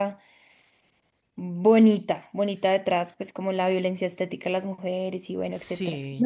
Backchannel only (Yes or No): No